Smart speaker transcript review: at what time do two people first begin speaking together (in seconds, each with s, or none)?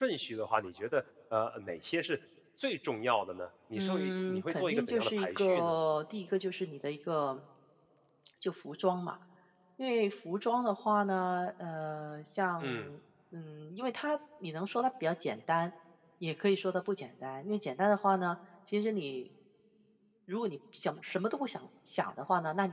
3.8 s